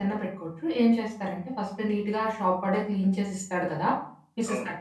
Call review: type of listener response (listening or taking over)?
listening